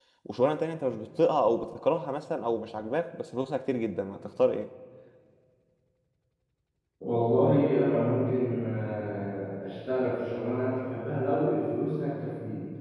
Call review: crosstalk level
none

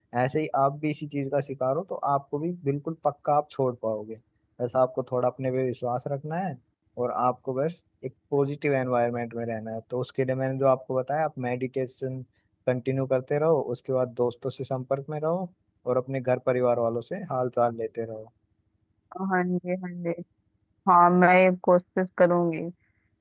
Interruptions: none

